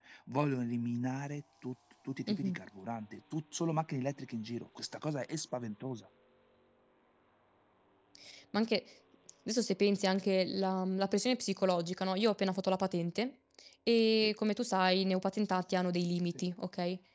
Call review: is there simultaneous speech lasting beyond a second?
No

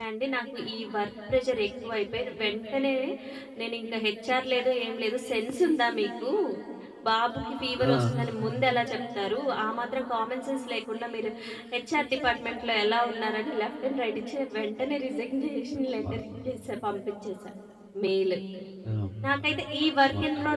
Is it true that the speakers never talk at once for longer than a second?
Yes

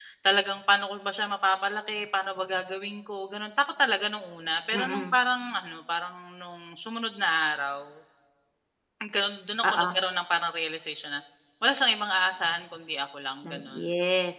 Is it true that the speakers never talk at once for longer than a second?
Yes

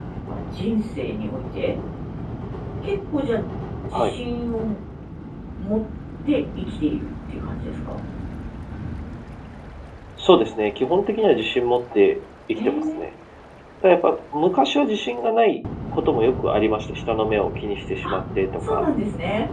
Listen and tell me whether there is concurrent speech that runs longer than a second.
No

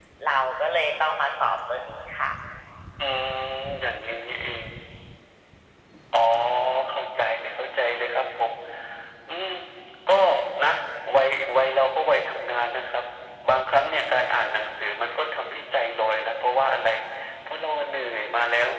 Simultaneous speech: No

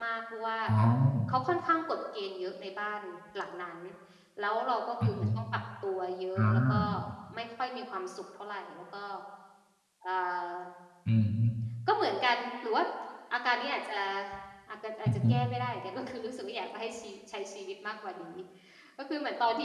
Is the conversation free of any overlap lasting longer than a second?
Yes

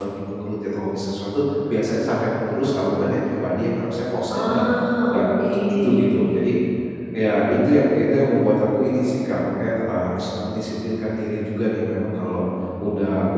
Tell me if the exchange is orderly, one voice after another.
No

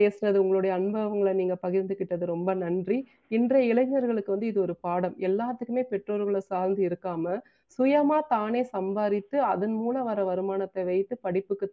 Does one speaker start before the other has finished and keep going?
No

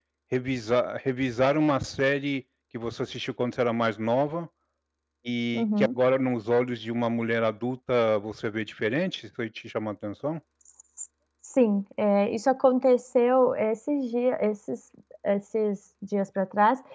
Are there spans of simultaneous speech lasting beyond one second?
No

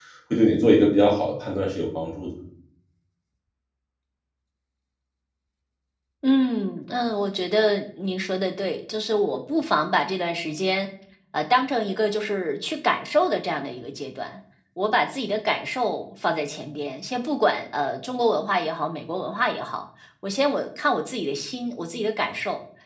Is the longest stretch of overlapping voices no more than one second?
Yes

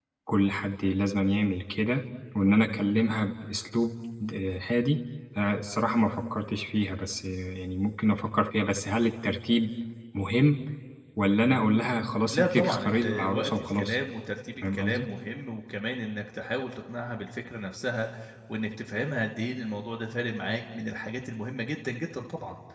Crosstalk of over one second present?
Yes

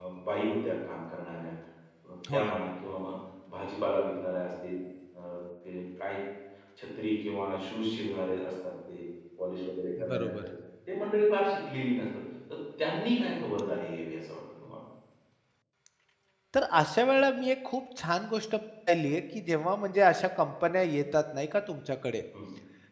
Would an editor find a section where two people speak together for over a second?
No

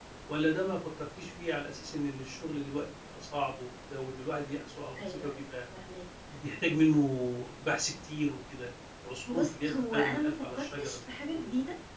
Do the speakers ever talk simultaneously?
Yes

